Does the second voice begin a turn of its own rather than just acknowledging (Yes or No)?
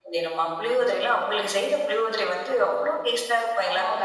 Yes